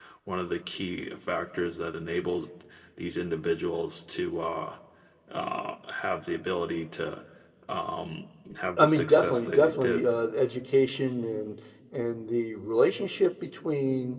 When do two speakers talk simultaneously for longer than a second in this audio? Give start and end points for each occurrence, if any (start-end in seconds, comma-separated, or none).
8.8-10.1